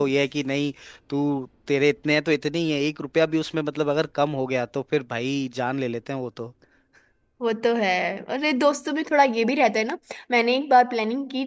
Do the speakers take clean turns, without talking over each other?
Yes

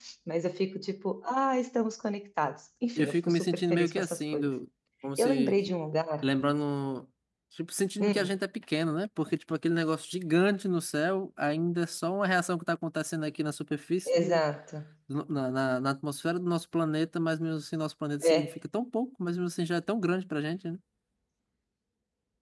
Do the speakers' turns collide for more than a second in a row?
Yes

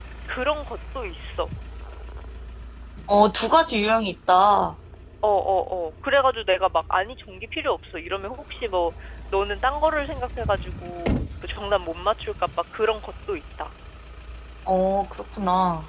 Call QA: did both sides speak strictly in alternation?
Yes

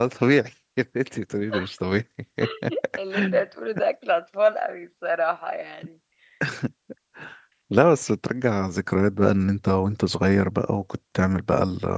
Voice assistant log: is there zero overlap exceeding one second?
Yes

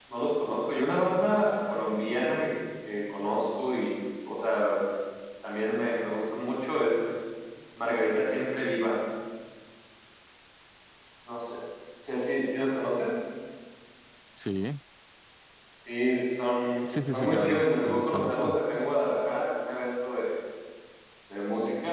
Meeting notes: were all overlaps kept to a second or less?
No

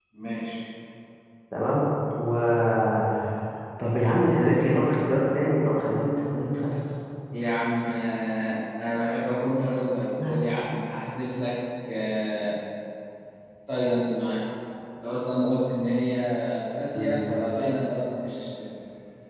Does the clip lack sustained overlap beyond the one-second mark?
Yes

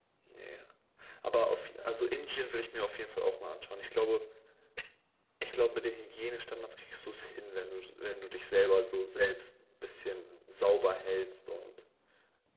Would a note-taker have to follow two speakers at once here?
No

